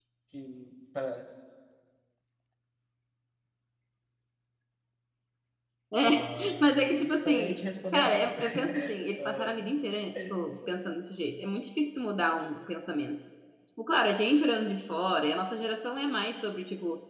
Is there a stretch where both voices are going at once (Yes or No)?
Yes